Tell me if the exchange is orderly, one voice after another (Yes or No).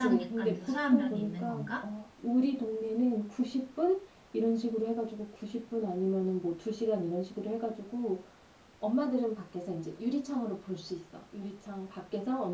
No